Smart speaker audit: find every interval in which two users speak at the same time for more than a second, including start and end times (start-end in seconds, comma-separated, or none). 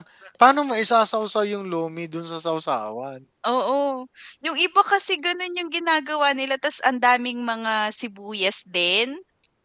none